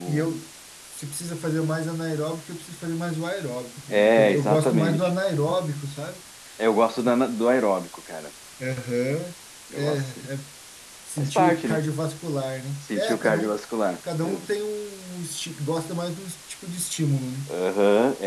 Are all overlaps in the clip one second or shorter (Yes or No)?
No